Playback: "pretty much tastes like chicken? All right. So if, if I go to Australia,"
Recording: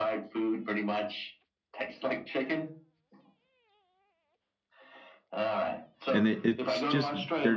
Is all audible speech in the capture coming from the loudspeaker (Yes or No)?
No